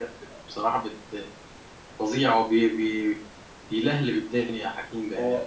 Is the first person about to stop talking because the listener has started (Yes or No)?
Yes